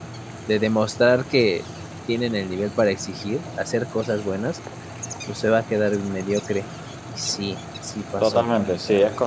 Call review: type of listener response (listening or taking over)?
taking over